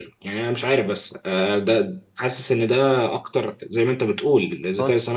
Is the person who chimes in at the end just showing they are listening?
Yes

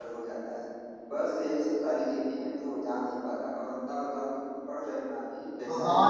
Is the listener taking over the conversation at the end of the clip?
Yes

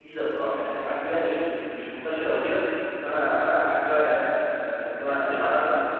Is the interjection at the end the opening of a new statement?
No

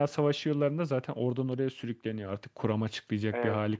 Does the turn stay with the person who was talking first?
No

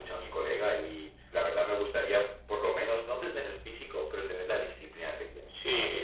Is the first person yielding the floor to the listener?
Yes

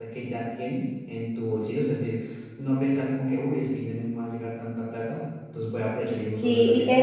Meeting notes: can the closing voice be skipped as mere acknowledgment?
No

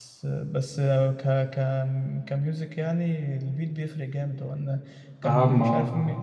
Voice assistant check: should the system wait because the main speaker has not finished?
Yes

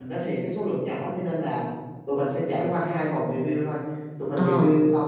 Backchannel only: Yes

